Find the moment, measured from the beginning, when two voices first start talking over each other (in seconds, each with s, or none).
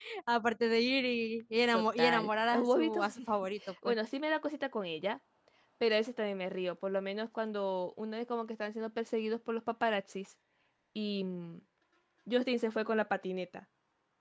1.7 s